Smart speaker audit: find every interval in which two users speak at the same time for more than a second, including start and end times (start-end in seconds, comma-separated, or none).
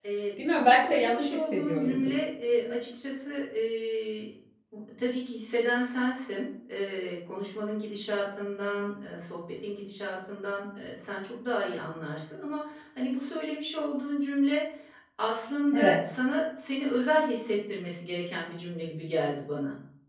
0.6-2.1